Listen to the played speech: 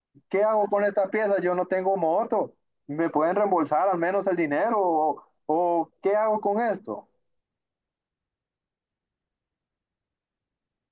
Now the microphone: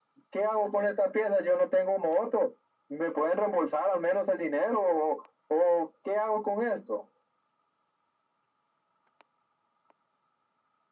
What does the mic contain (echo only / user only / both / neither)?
echo only